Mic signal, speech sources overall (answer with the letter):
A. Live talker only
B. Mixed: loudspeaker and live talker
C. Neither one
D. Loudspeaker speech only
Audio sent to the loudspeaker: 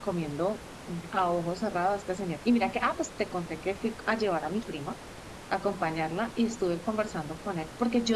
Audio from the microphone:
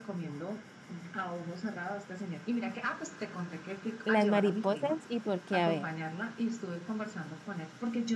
B